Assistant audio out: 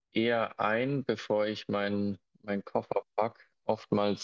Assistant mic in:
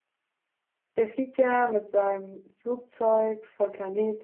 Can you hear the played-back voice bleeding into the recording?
No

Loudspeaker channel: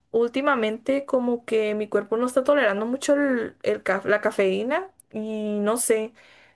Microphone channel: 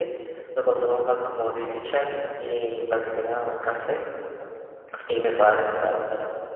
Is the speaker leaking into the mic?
No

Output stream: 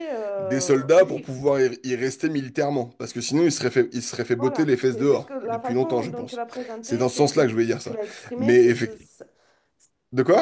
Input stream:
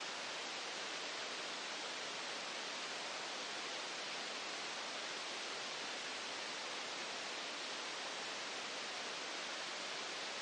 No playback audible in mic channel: Yes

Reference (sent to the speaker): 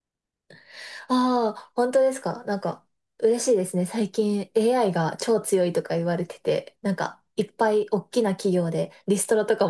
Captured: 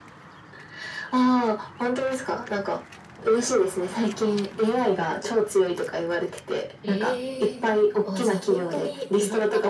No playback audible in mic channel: No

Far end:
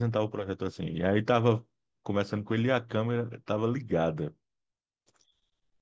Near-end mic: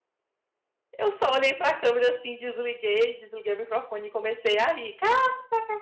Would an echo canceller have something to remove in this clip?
No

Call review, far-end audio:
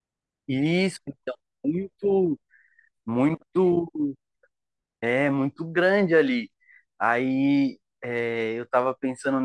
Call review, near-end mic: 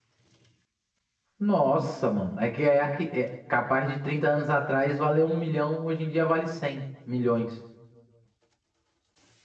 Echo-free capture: Yes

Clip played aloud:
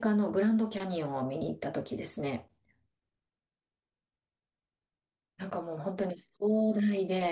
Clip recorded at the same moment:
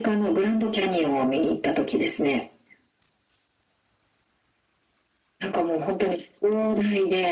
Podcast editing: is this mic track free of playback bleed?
No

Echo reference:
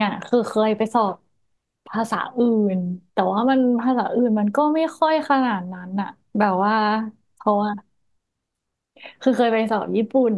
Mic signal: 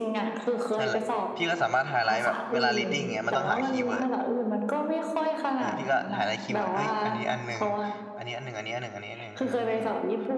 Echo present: Yes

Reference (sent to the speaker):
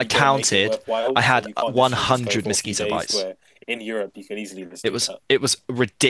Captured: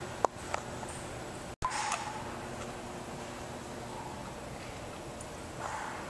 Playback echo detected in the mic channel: No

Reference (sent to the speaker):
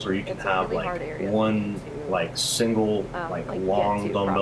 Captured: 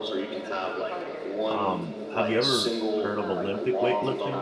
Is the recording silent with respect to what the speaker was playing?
No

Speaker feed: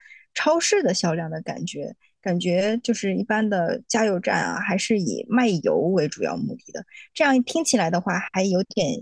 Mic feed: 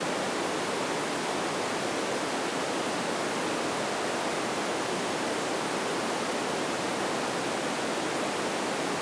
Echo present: No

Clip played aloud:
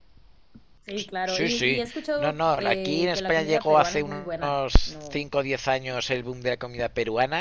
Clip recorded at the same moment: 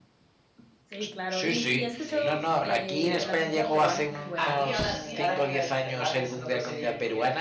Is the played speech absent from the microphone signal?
No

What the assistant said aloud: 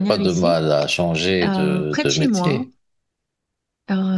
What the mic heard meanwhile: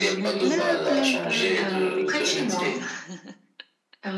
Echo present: Yes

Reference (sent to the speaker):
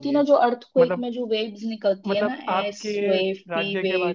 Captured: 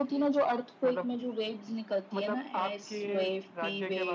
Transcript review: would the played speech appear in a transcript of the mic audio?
Yes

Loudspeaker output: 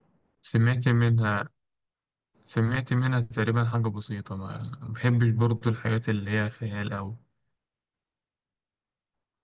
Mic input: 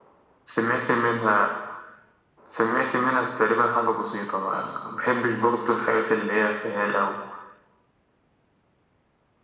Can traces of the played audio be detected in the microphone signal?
Yes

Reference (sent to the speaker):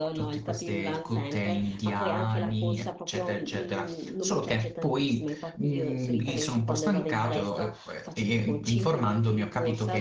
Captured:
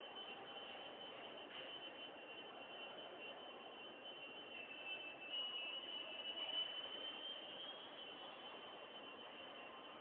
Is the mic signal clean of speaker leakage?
Yes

